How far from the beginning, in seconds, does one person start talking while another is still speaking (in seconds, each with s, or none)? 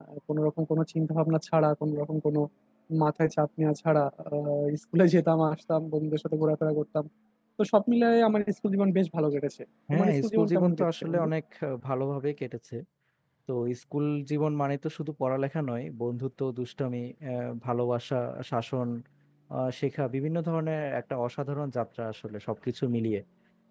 9.9 s